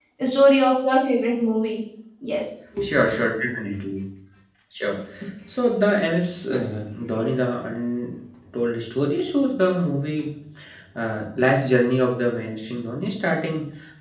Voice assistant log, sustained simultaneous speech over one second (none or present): none